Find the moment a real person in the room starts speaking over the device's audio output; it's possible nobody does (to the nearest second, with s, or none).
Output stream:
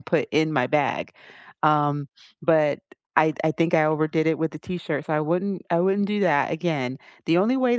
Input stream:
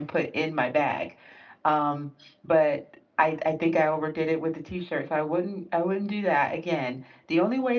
none